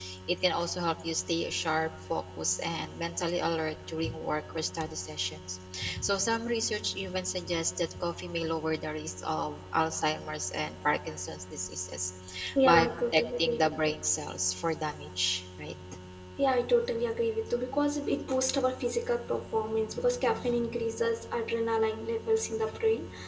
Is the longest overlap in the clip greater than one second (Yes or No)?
Yes